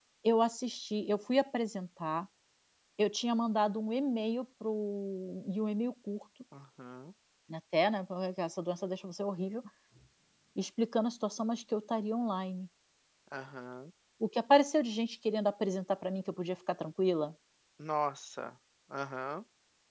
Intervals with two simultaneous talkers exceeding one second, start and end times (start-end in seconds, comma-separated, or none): none